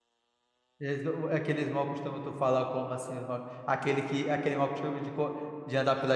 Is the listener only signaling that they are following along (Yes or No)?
No